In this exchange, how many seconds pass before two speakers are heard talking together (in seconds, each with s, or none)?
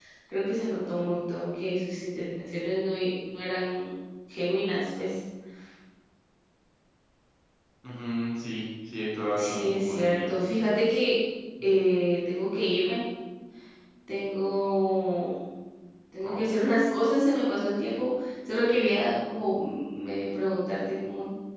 9.4 s